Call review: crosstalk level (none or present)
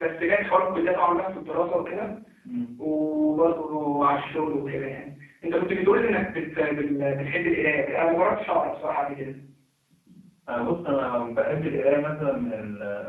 none